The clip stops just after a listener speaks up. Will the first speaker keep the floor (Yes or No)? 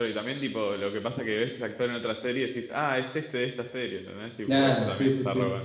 No